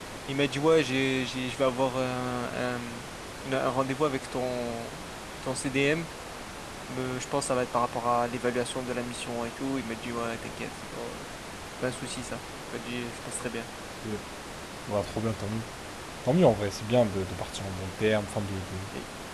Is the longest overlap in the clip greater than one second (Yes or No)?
No